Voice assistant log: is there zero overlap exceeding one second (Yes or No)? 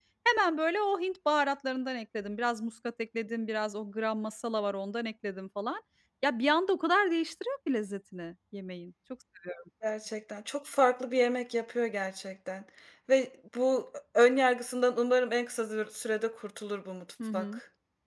Yes